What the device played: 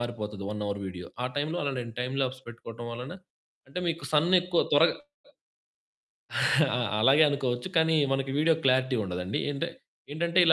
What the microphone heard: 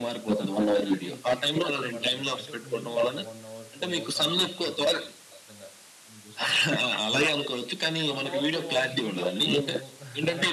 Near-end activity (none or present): present